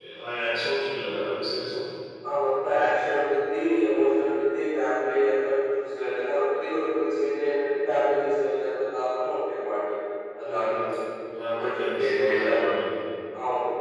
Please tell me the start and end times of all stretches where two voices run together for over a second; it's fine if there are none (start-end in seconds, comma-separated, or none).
11.6-12.8